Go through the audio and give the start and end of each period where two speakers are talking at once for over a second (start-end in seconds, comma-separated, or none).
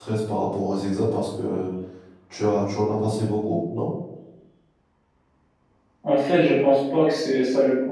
none